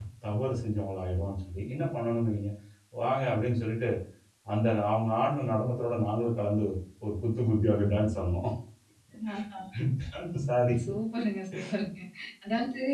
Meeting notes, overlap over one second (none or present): none